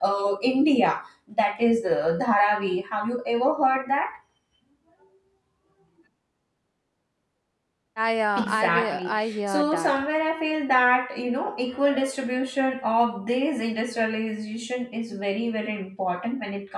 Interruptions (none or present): present